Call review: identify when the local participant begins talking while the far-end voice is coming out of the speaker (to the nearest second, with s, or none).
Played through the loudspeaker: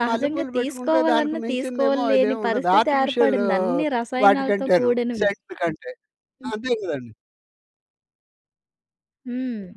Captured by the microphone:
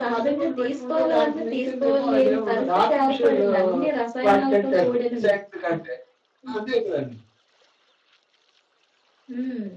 none